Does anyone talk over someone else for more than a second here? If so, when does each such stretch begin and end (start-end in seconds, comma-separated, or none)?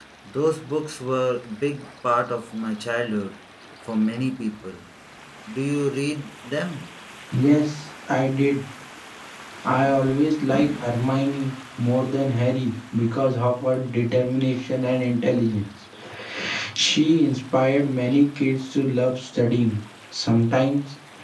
none